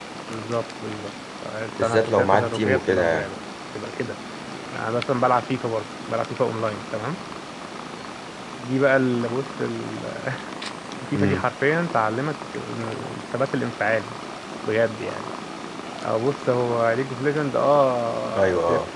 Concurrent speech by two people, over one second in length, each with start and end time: 1.8-3.3

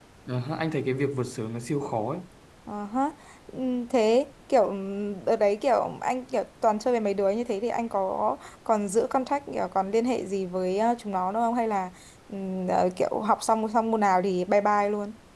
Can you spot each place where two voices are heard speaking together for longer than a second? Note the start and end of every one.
none

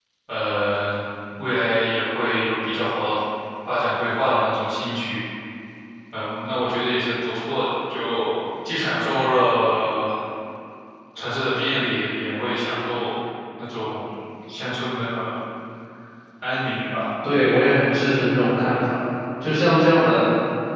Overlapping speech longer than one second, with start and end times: none

